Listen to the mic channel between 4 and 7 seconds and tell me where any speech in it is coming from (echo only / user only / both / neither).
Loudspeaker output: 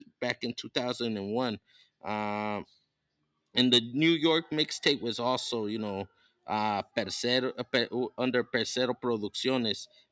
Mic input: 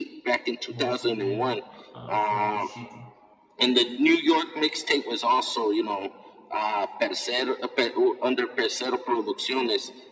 echo only